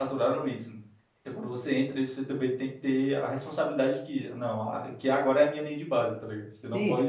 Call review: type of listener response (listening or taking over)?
taking over